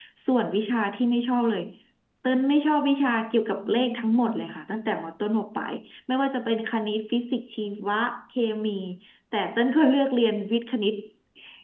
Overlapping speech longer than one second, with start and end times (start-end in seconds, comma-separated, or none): none